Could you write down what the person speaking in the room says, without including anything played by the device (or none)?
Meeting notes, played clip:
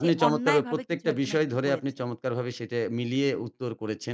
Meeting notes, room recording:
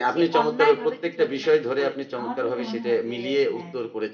আমার কাছে মনে হয় যে হ্যাঁ, জ্বি,